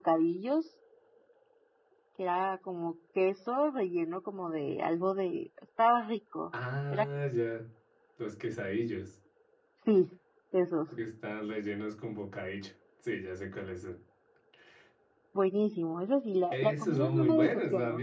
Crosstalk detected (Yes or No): Yes